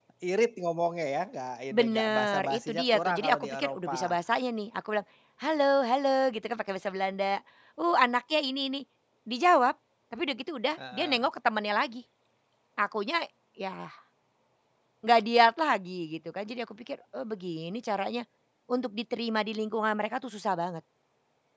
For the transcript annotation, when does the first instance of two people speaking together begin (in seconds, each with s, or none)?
1.7 s